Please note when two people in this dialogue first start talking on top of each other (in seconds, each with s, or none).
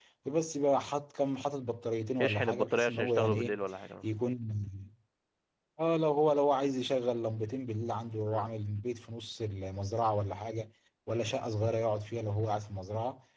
2.2 s